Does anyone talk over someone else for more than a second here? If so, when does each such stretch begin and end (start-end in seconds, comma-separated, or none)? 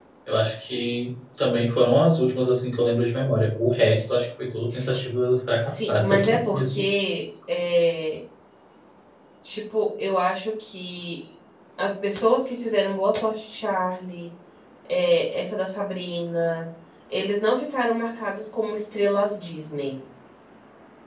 5.6-6.8